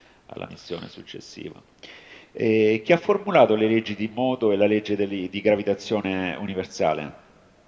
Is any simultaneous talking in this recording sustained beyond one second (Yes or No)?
No